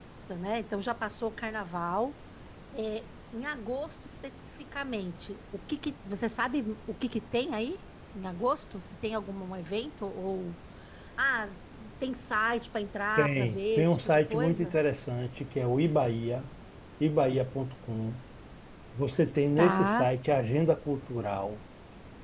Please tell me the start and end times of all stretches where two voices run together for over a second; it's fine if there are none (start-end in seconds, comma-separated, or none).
13.2-14.7